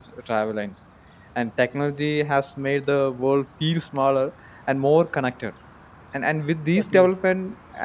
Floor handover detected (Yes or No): No